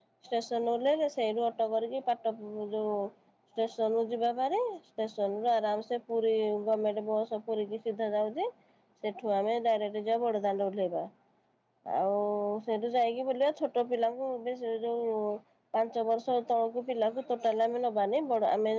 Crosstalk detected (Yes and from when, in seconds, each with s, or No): No